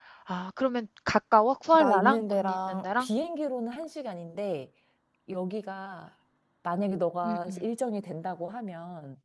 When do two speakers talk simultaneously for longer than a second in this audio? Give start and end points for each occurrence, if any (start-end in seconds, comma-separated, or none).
1.7-3.1